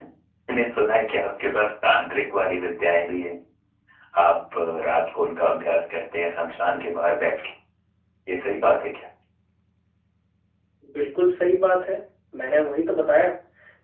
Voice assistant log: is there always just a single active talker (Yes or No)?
Yes